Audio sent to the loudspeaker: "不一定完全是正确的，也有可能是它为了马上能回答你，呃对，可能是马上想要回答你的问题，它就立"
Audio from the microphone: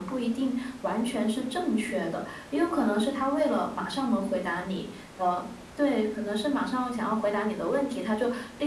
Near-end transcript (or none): none